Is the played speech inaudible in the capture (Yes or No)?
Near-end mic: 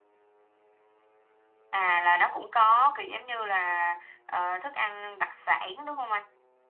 Yes